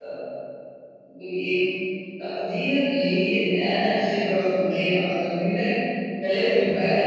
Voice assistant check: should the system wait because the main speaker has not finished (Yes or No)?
Yes